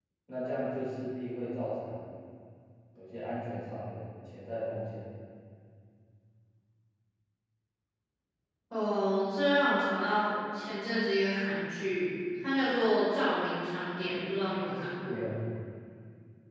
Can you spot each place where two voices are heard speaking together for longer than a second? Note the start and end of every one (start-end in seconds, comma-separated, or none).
none